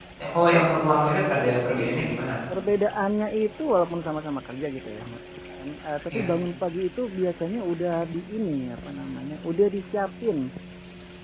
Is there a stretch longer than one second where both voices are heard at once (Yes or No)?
No